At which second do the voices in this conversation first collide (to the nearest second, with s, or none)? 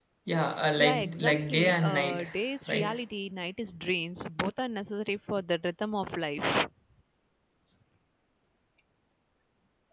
1 s